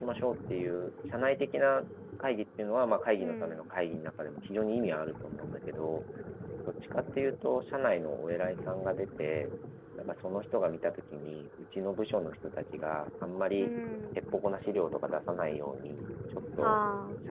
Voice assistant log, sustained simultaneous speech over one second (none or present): none